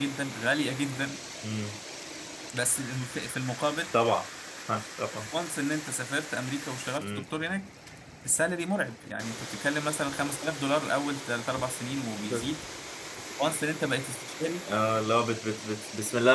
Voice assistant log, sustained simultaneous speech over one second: none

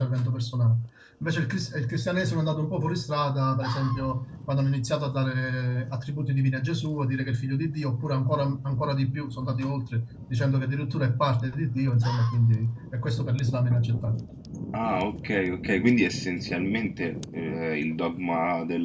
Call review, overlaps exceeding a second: none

